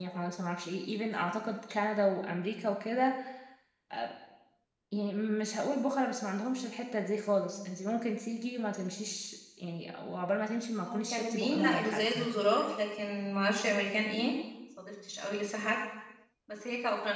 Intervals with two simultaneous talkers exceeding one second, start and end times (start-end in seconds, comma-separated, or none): 10.8-12.3